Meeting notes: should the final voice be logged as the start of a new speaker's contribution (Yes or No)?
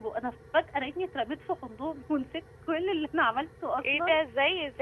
Yes